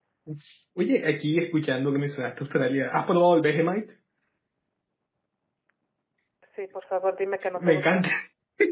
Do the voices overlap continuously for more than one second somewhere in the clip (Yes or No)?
No